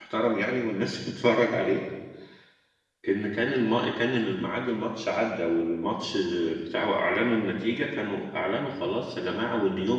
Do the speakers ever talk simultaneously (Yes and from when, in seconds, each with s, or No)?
No